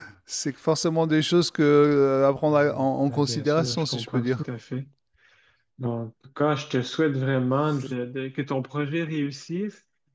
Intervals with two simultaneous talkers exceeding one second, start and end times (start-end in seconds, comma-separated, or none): 2.5-4.4